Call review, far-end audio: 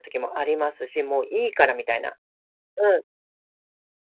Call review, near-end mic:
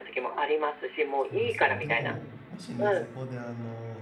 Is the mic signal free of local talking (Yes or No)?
No